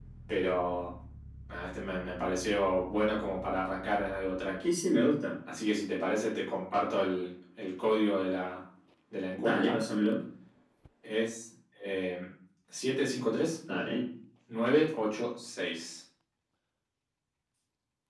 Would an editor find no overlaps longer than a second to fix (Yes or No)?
Yes